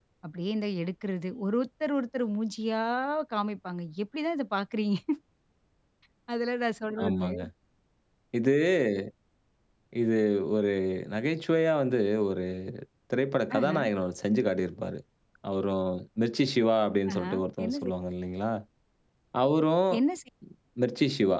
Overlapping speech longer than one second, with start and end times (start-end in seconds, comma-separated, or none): none